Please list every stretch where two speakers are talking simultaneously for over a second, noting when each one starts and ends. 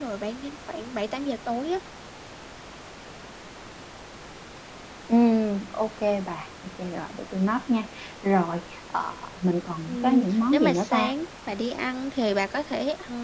9.9-11.1

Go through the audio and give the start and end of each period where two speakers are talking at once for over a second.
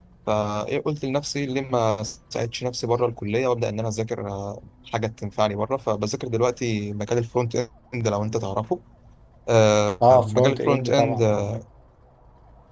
10.1-11.4

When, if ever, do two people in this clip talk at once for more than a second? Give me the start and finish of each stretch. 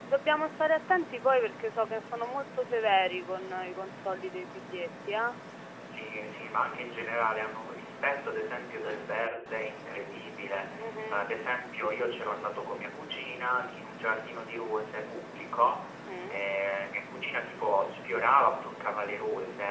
none

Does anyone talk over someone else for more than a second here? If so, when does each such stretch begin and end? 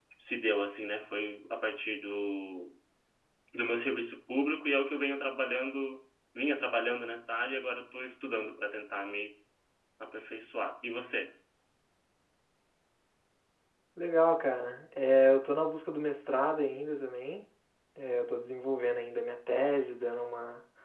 none

